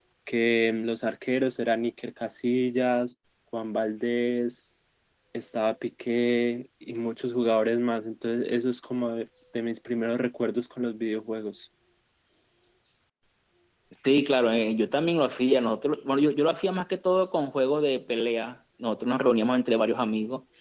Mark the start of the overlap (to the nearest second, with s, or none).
none